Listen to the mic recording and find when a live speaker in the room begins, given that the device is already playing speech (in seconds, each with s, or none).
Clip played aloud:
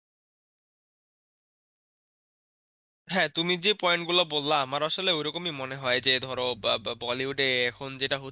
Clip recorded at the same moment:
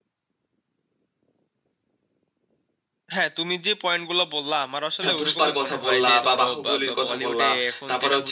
5.0 s